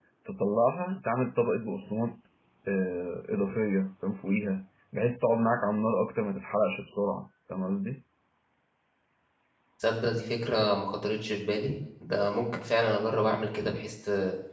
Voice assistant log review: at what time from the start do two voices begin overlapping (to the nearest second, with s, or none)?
none